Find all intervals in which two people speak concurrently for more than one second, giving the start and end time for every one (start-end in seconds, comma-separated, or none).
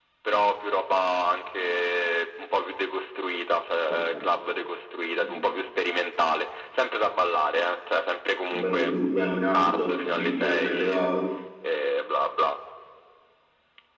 9.5-11.0